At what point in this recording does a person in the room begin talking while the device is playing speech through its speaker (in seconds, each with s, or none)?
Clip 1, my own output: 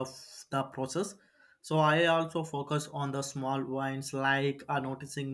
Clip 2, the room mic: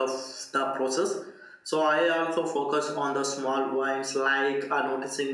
none